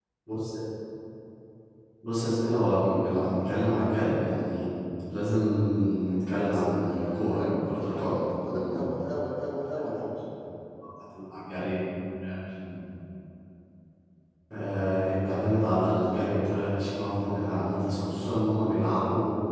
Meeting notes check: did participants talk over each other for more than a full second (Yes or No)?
Yes